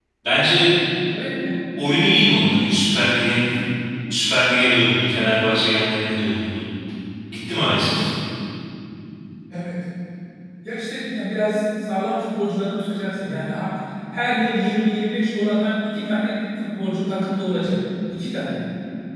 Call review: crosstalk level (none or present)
none